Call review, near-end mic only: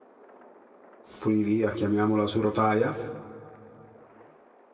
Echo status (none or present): none